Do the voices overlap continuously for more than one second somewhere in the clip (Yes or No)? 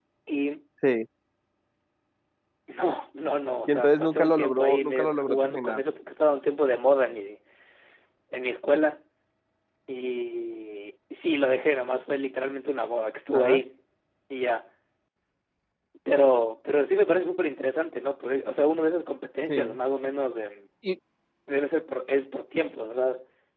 Yes